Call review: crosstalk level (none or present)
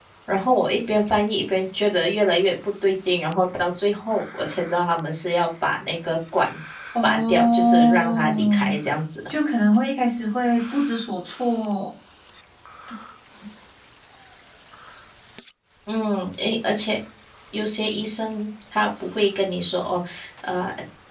present